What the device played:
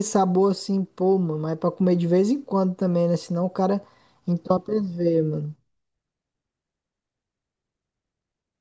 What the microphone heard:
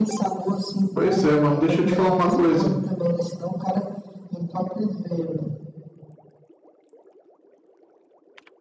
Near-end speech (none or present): present